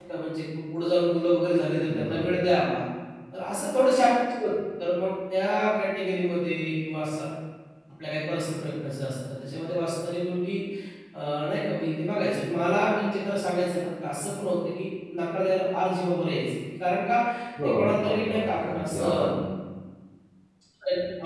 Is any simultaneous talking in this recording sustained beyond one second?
Yes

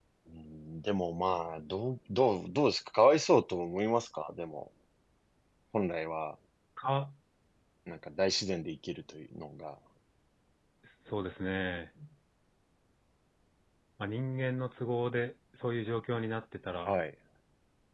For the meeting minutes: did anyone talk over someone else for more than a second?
No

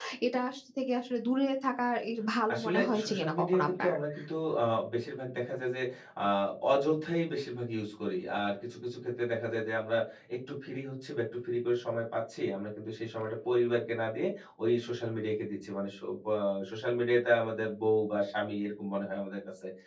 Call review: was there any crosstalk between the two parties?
Yes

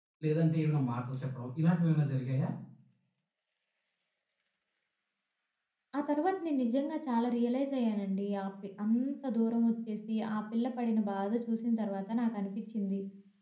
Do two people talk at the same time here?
No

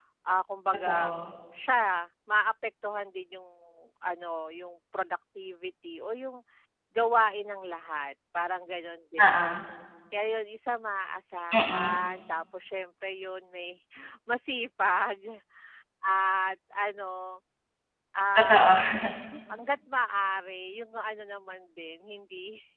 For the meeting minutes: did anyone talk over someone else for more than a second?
No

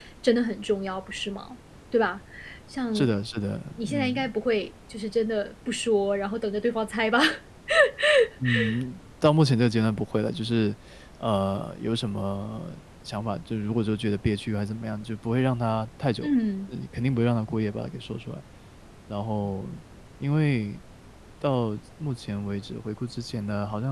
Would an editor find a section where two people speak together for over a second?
No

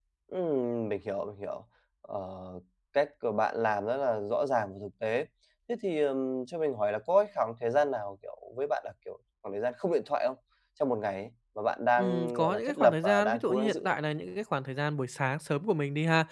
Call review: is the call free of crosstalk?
No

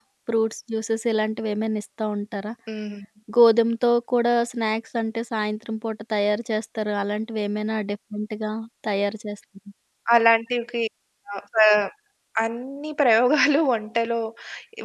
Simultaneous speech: No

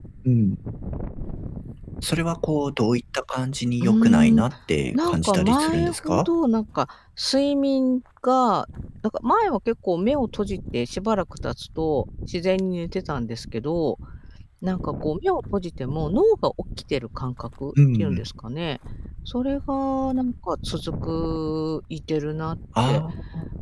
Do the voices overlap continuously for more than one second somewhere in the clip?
Yes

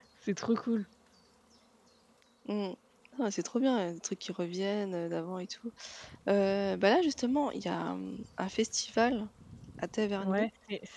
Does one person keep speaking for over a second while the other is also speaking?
No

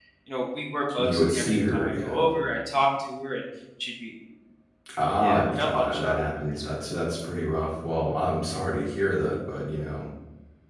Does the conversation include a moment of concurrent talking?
Yes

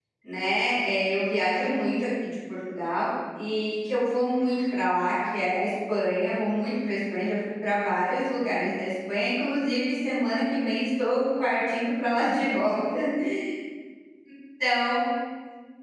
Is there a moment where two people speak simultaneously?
No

